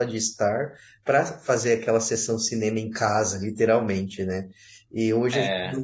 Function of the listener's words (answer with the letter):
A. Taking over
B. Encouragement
B